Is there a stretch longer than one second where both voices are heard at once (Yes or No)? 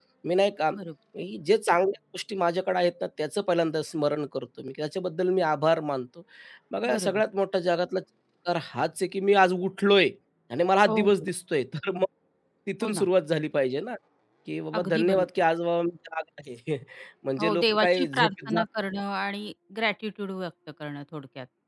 Yes